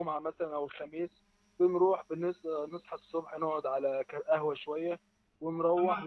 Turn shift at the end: No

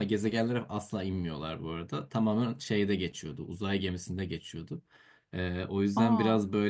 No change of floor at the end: Yes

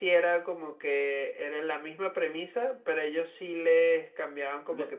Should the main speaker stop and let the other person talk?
No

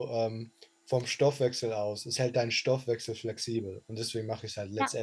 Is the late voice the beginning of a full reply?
Yes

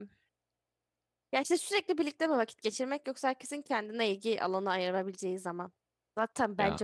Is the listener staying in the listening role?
Yes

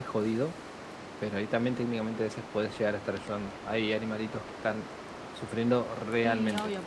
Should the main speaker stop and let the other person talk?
Yes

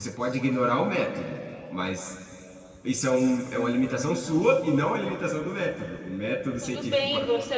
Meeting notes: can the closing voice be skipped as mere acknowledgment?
No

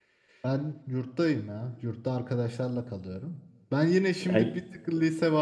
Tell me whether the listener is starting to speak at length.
No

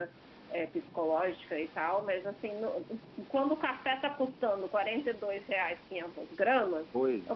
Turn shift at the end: No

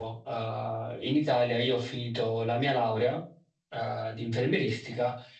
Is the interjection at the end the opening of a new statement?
No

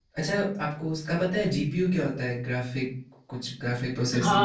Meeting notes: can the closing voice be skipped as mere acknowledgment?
No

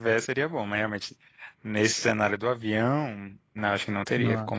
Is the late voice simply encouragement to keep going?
Yes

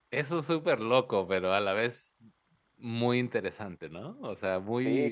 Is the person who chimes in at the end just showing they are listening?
No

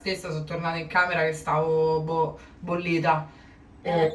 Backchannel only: Yes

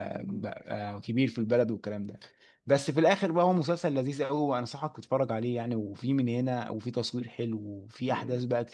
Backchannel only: No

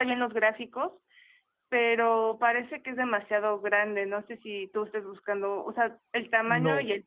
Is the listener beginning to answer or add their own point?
Yes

